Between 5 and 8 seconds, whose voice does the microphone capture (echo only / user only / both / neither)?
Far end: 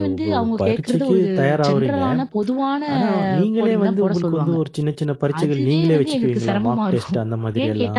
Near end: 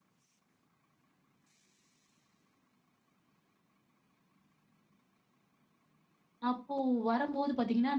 user only